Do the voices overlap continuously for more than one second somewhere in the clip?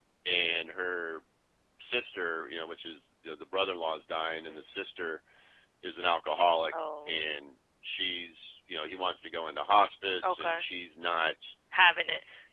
No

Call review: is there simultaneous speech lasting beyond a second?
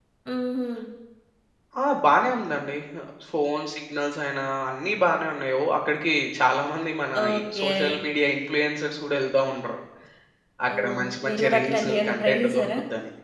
Yes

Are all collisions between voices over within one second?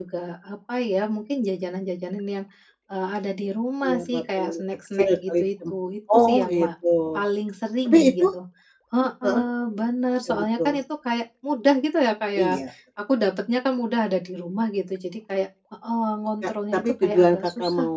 No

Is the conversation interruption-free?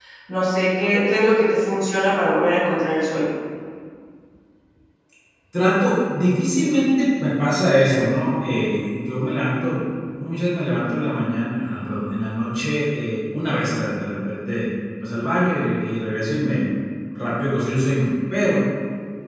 Yes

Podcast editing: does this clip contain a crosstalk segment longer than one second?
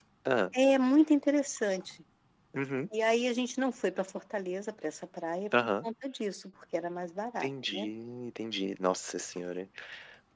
No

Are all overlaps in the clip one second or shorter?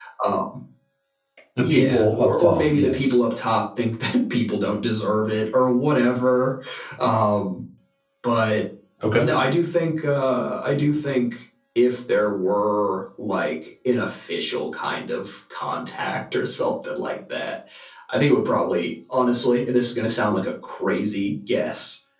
No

